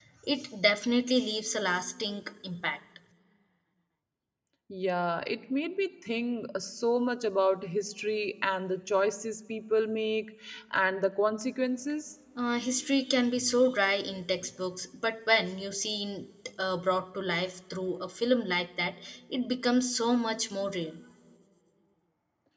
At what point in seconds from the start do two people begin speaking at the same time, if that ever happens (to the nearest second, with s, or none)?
none